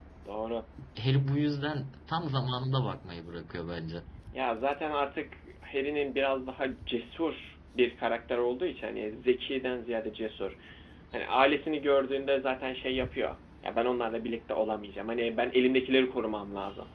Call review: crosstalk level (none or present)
none